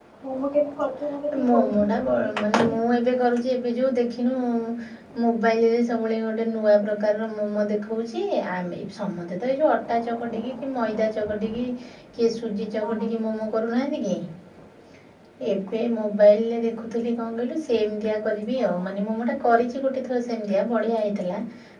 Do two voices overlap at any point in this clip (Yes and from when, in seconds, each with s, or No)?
Yes, from 1.5 s